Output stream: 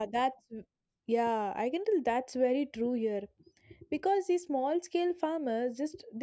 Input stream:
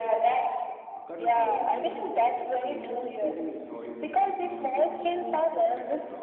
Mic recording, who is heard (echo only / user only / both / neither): both